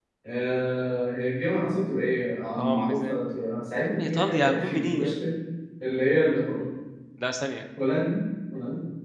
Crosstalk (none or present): present